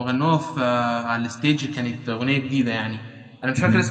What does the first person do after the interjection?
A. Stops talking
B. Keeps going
B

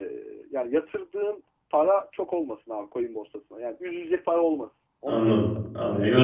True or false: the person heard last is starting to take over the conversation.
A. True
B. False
A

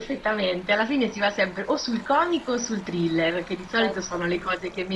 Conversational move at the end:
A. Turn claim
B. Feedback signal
B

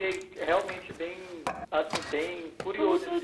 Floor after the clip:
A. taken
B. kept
A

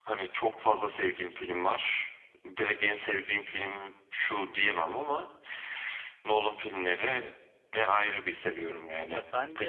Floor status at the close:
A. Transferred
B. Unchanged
A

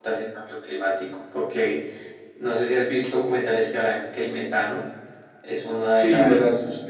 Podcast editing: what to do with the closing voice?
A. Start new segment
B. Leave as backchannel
A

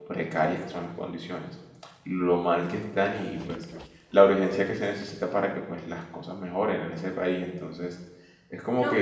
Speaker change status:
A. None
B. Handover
B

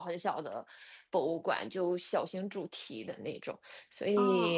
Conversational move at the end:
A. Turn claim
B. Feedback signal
B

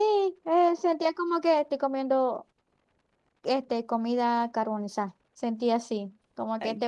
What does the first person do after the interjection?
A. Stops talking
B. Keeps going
B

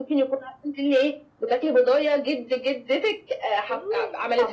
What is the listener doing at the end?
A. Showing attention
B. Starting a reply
B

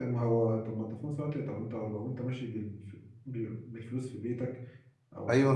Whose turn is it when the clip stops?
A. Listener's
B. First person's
A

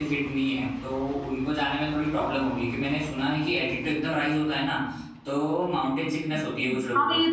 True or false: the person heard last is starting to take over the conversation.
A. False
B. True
B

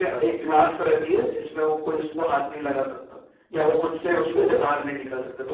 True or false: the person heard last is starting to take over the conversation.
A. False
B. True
A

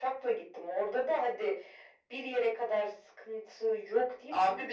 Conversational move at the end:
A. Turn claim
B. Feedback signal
A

